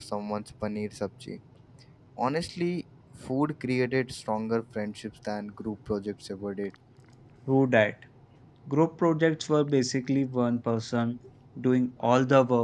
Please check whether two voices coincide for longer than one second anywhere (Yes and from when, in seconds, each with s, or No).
No